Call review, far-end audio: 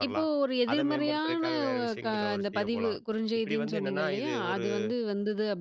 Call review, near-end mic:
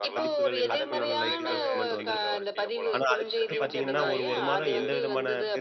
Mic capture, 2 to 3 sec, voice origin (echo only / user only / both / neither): both